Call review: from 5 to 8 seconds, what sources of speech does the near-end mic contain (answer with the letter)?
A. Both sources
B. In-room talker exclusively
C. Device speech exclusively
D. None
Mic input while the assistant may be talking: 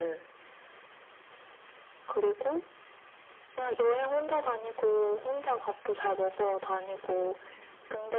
C